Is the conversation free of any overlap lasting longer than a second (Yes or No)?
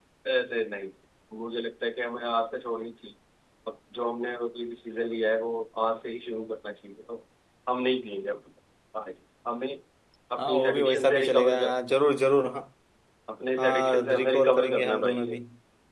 No